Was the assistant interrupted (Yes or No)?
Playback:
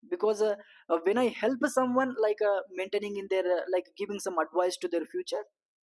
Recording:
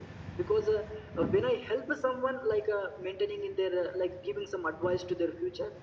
No